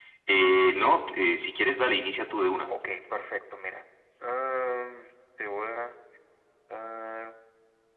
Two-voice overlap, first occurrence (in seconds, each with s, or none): none